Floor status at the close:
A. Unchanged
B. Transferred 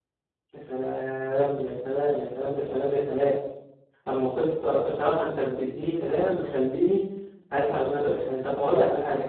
A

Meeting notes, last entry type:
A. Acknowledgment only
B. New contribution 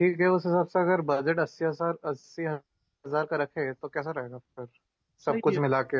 A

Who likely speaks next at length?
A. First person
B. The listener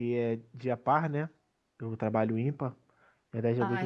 B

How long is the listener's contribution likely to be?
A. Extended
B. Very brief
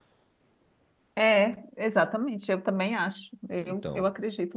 B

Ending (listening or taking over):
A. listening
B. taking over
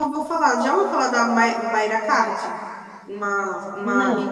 A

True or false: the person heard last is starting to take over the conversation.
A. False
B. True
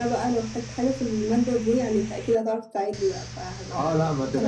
B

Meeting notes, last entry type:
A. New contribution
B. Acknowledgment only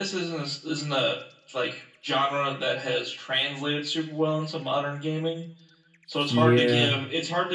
B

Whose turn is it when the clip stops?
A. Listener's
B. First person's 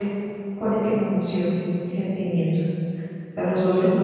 B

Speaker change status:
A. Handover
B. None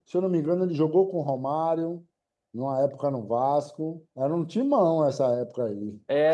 A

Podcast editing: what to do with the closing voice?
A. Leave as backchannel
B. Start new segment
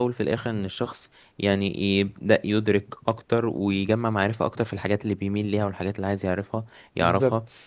A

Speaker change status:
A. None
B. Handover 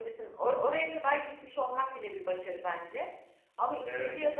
A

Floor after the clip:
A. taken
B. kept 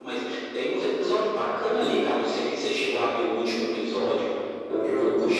B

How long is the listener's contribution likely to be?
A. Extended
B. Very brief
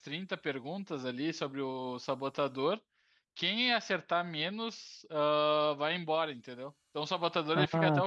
A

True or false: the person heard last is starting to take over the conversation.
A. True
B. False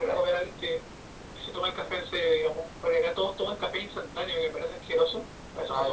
A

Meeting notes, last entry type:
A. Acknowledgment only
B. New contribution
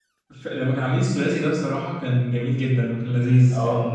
B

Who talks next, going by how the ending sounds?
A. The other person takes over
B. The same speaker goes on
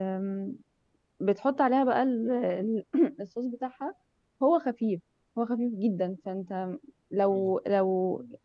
B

